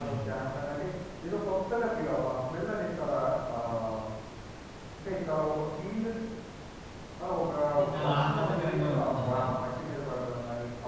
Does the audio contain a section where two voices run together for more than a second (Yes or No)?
Yes